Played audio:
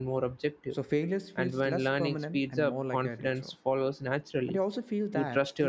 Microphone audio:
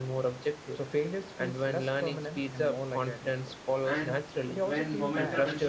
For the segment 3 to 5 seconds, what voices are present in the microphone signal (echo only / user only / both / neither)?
both